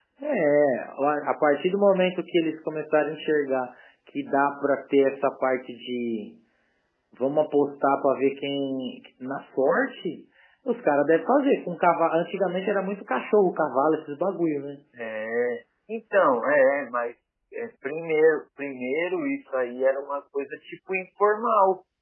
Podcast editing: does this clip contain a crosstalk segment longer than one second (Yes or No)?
No